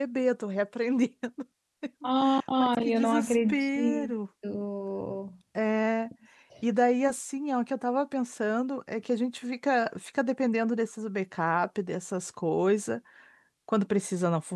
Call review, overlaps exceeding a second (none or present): present